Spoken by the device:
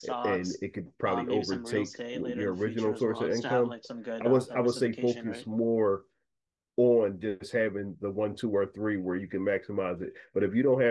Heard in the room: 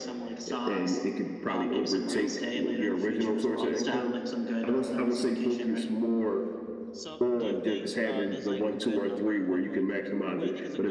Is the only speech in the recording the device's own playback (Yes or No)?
No